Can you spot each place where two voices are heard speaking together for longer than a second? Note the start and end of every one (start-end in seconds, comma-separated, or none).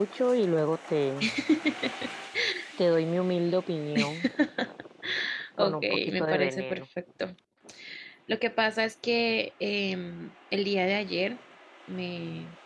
5.6-6.8